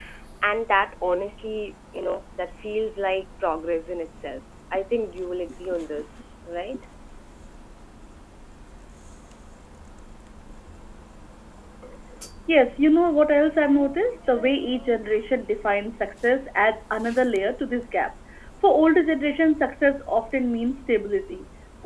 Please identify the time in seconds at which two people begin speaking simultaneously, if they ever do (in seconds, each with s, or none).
none